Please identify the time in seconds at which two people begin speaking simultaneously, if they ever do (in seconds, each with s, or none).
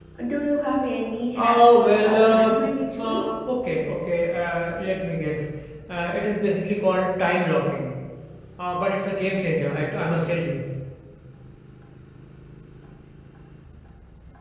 1.4 s